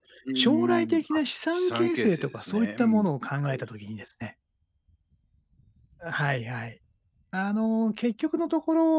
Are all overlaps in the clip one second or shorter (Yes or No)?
No